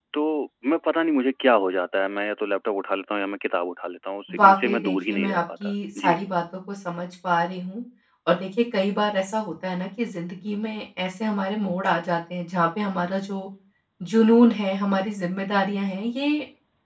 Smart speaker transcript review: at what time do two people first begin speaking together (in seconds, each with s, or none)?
4.3 s